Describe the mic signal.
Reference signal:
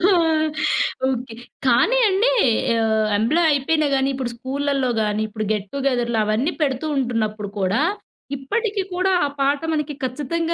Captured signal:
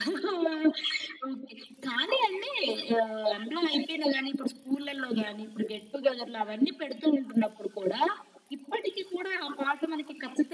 echo only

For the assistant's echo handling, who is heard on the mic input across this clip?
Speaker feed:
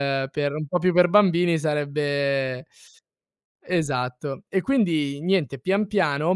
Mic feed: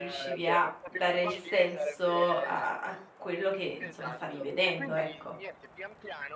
both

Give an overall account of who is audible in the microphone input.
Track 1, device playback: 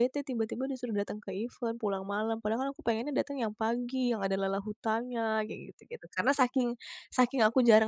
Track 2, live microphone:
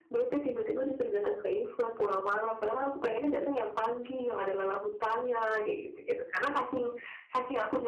echo only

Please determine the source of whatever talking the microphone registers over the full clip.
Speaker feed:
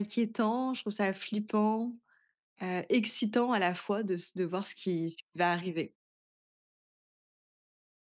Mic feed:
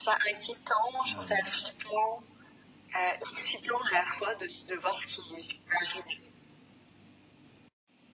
both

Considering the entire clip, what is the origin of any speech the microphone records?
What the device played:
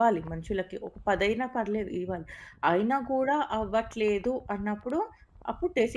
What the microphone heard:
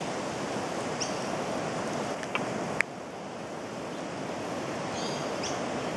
neither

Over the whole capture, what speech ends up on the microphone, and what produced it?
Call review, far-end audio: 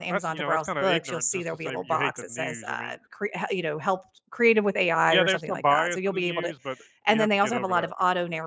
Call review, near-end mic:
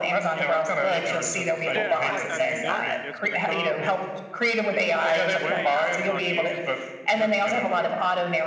both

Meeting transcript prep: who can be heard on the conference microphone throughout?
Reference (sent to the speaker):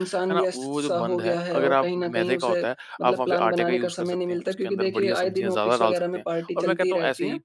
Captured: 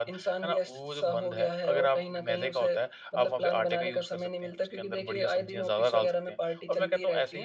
echo only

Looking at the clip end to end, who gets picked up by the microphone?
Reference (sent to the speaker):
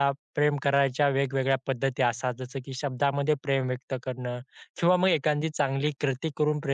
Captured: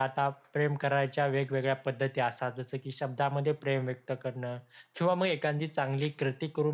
echo only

